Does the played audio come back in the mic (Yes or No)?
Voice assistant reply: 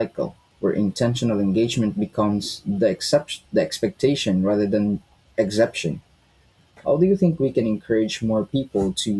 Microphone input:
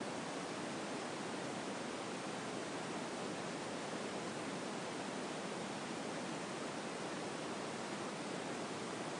No